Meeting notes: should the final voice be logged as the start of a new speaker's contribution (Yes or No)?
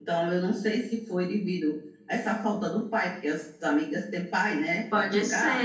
Yes